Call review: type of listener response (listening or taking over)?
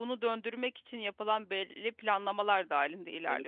taking over